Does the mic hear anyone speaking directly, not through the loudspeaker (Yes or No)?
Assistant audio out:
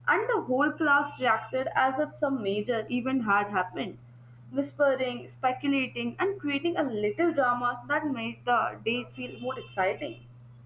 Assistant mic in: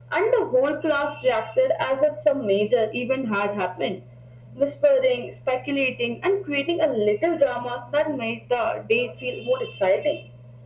No